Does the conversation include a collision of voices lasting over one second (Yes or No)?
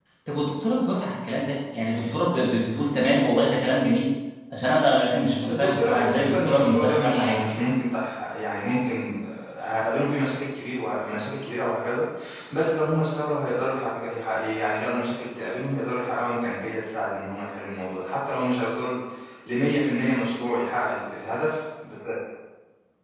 Yes